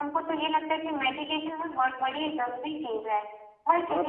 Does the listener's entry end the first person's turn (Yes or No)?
Yes